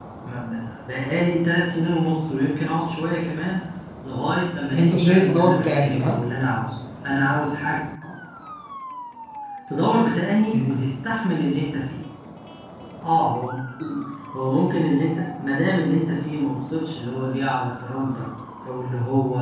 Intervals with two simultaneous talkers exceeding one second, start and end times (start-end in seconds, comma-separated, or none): 4.7-6.2